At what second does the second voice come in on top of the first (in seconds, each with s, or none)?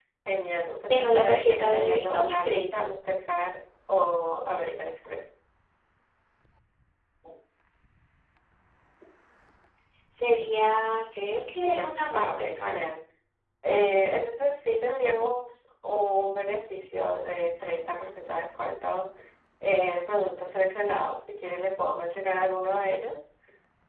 0.9 s